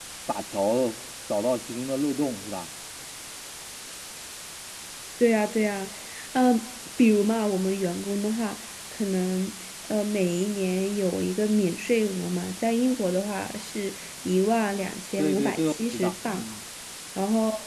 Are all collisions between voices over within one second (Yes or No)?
No